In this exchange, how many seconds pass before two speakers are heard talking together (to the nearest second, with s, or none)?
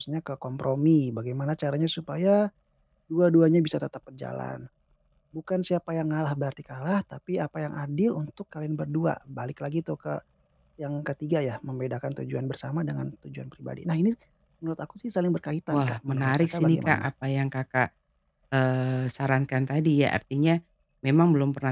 16 s